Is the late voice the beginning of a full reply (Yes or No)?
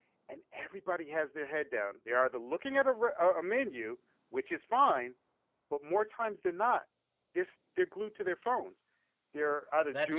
No